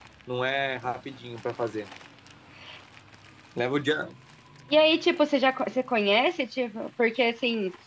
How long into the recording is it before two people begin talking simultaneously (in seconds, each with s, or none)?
none